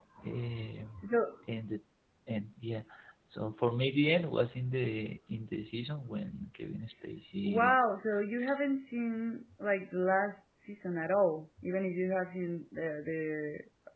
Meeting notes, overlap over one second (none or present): none